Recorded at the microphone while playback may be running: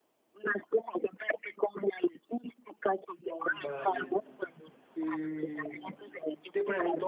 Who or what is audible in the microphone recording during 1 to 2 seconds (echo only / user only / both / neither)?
echo only